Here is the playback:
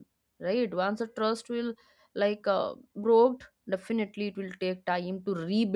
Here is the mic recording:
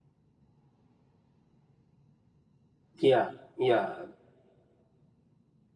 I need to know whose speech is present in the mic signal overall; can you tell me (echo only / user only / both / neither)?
user only